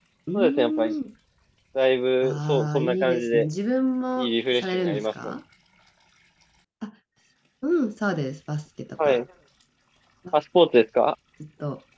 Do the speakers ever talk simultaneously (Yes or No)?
Yes